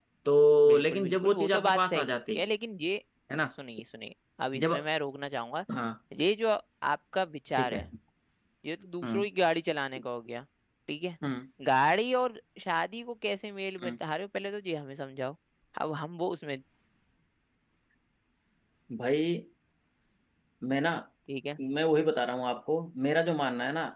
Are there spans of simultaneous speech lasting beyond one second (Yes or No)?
Yes